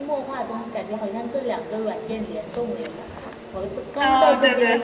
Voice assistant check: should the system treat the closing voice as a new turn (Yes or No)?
Yes